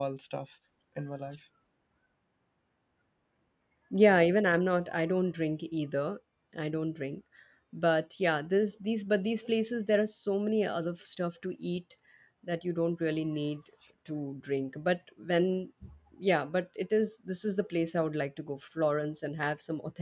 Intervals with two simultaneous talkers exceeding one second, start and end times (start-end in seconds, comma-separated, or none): none